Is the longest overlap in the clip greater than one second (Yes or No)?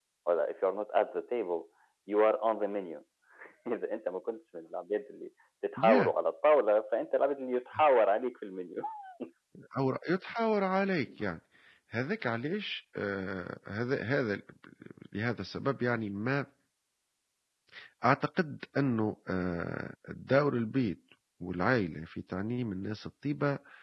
No